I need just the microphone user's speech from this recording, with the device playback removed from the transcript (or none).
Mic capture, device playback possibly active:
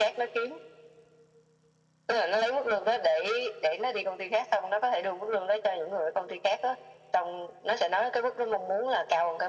none